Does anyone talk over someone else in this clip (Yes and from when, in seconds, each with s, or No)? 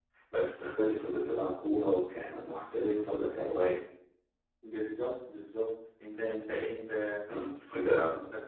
No